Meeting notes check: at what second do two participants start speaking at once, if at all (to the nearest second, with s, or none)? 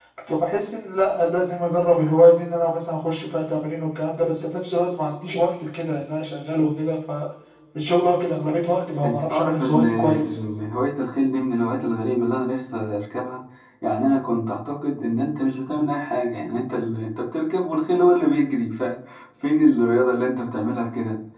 9 s